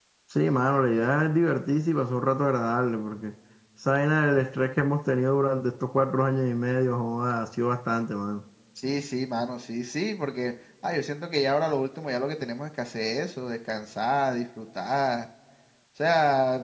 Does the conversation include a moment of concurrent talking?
No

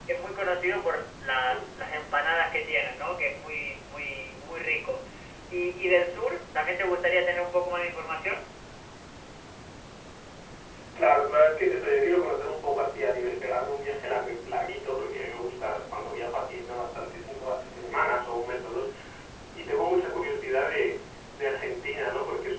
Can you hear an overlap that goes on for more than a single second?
No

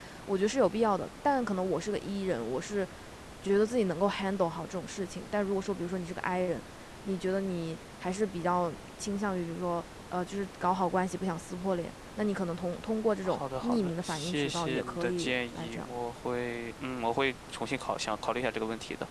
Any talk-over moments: Yes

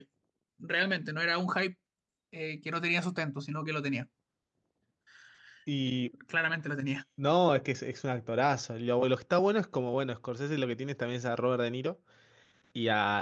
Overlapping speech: No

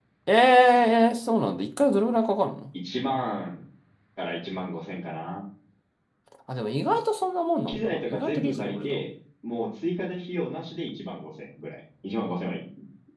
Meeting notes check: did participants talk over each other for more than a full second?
Yes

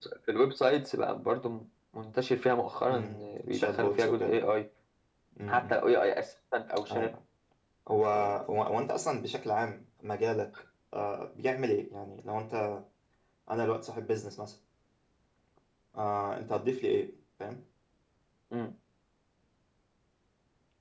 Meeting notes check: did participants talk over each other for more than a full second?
Yes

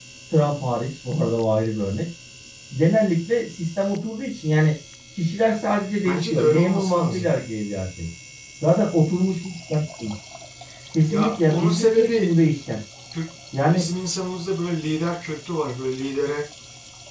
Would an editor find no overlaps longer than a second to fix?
No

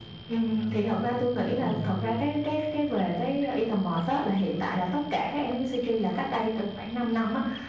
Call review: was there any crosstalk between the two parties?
Yes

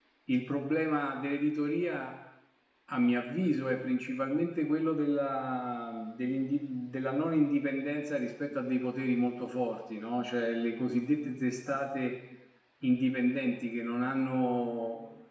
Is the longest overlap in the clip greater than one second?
No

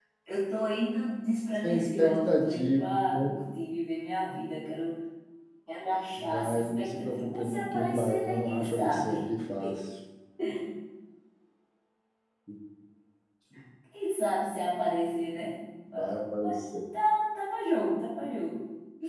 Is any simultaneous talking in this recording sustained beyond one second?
Yes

